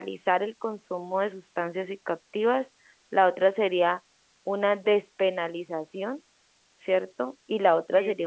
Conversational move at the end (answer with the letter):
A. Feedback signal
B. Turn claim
A